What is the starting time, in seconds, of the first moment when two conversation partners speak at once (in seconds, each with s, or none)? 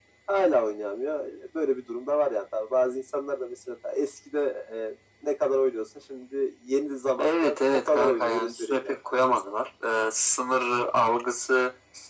7.2 s